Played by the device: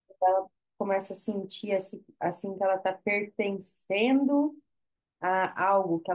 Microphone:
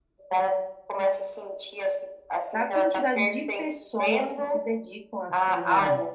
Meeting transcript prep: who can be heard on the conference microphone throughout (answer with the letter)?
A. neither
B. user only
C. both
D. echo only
C